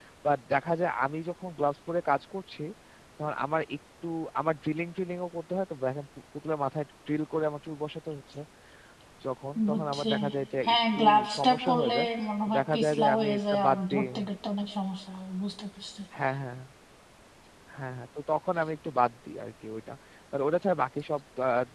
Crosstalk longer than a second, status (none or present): present